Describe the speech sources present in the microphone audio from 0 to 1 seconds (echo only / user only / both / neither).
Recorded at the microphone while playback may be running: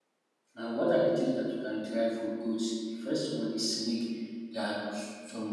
user only